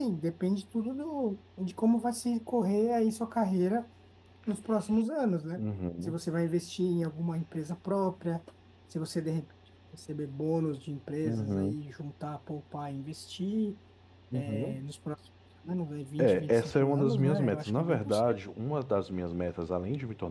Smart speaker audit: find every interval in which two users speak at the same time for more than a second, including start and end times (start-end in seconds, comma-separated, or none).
16.2-18.4